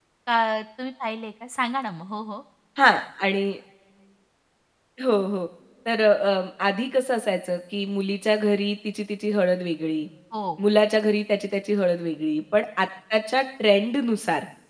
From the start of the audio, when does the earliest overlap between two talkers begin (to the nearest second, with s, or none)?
none